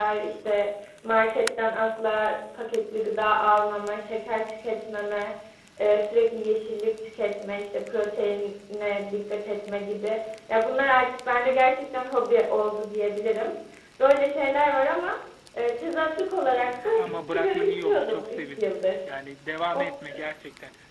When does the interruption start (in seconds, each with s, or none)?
17.0 s